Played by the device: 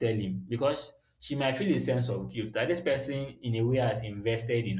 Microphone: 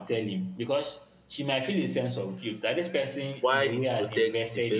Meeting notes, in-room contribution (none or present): present